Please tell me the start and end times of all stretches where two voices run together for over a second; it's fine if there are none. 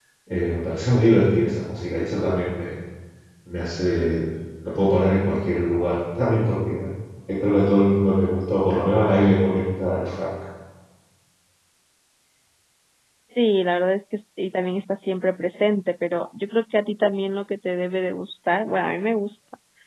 none

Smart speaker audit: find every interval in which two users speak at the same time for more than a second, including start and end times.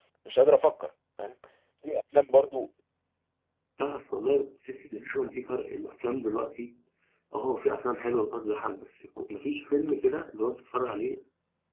none

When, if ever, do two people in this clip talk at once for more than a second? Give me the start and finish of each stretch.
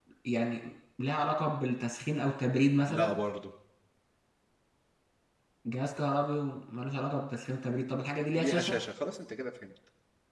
none

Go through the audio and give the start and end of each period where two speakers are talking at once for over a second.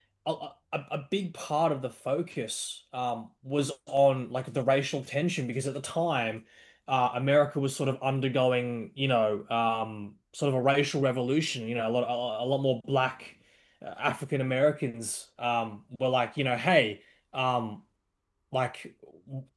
none

